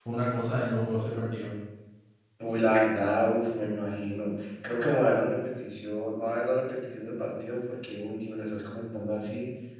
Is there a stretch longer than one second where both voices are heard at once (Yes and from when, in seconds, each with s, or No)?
No